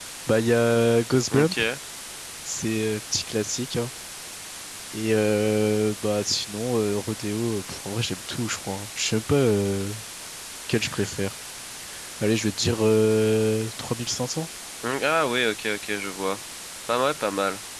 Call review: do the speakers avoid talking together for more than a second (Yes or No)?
Yes